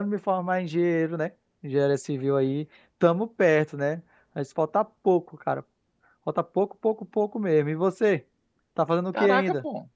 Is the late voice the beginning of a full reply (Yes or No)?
Yes